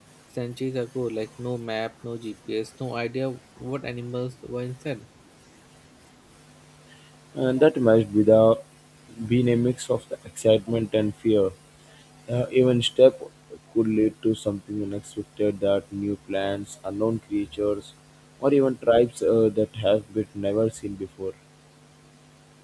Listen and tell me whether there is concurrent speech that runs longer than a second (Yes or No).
No